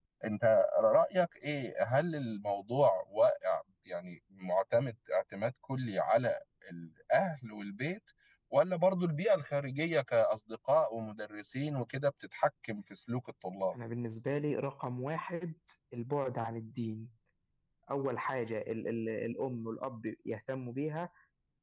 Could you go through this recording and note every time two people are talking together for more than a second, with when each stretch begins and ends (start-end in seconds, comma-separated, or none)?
none